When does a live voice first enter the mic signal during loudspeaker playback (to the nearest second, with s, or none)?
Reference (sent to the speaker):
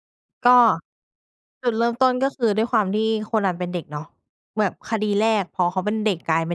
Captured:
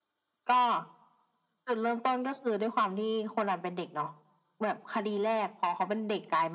none